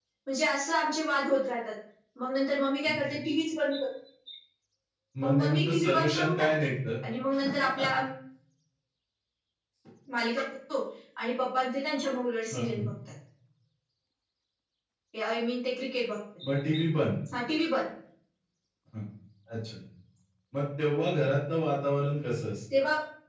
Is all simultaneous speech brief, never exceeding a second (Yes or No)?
No